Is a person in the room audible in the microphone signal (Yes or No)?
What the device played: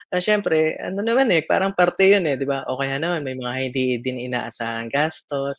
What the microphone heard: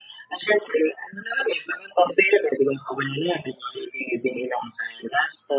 No